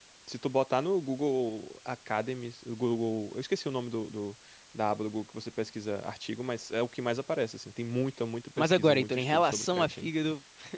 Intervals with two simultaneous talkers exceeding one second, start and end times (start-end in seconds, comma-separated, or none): 8.6-10.1